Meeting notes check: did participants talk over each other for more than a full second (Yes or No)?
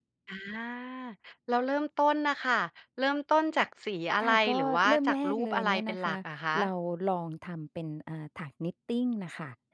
Yes